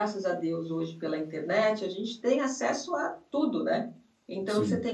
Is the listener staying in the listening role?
Yes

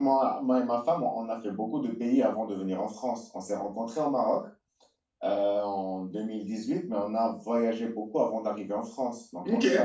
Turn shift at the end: No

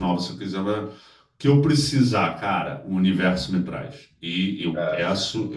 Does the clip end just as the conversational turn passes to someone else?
No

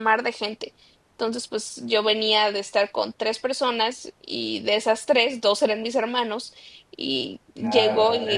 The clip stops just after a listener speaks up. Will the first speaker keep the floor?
No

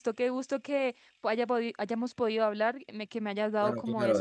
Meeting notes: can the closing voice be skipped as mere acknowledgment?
No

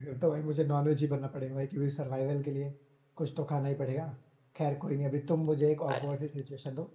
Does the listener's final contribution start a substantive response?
No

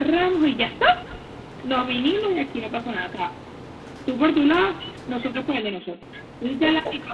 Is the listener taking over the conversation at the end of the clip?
No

